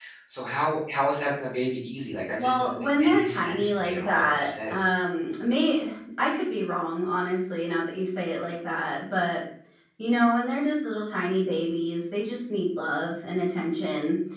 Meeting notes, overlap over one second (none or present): present